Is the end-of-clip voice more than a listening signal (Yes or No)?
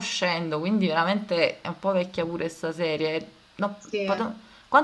No